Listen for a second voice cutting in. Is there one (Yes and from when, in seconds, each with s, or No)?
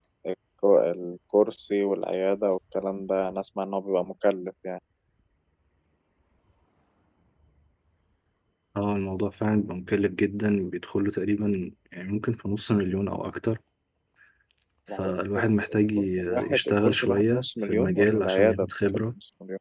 Yes, from 14.9 s